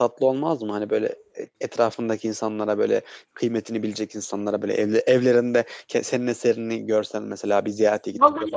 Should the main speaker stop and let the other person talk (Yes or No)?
Yes